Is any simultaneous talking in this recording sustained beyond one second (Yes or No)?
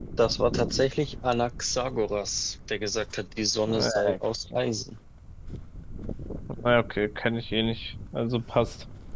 No